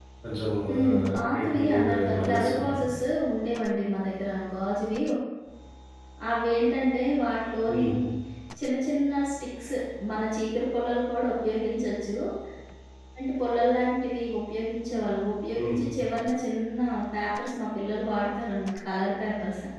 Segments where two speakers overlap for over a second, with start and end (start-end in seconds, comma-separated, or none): 0.7-2.8